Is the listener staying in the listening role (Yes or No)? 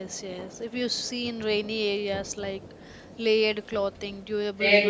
No